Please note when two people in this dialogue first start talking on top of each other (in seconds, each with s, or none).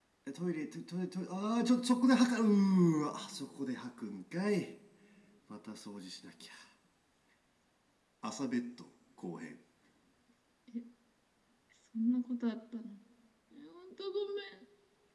none